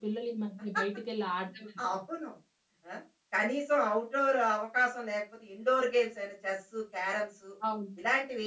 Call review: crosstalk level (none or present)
none